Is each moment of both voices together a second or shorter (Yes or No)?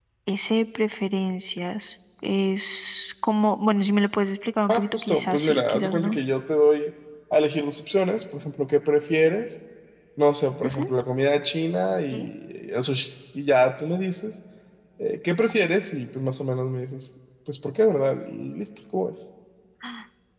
No